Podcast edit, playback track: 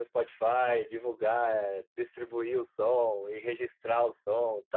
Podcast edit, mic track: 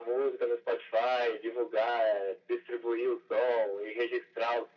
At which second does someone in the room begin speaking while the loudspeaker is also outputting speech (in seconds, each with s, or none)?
none